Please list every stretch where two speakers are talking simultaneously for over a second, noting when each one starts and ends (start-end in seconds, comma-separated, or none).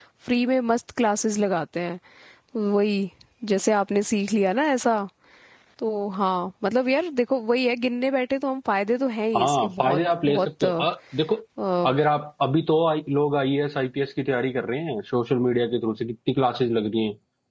9.4-10.8